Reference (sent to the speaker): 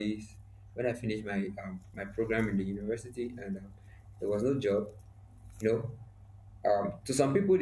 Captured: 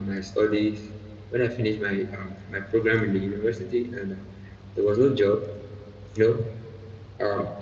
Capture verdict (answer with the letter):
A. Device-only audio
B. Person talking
A